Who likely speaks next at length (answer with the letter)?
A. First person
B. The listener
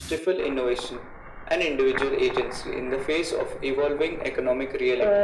B